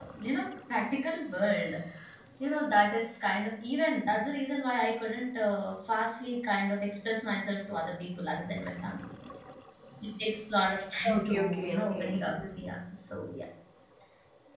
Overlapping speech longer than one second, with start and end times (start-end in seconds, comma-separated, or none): 11.1-12.4